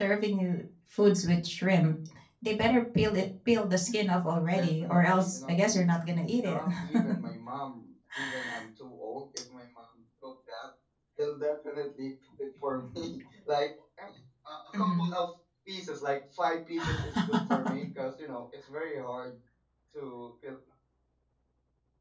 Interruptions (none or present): present